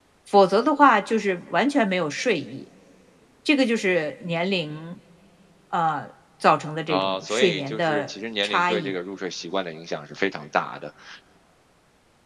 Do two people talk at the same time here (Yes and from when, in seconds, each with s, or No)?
Yes, from 6.9 s